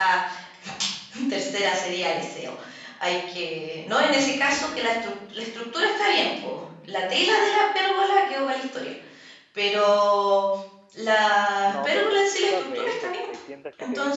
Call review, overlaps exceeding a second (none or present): present